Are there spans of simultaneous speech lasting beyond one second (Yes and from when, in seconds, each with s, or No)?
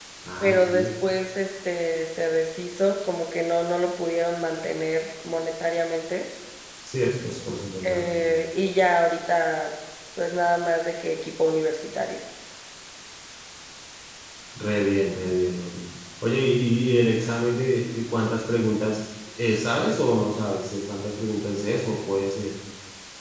No